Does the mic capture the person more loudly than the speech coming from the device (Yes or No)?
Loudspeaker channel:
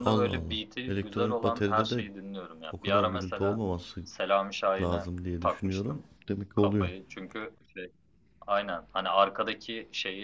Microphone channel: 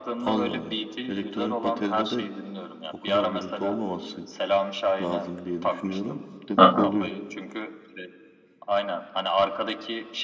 Yes